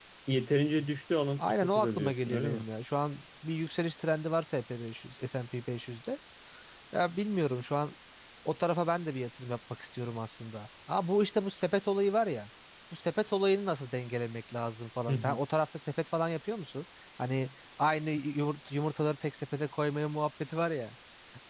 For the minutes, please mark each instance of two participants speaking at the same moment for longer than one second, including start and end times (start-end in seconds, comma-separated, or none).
1.4-2.6